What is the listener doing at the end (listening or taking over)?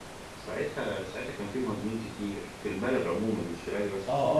taking over